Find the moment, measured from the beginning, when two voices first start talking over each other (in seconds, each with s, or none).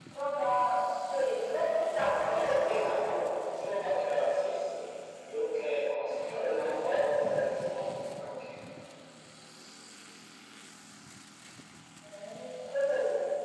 1.9 s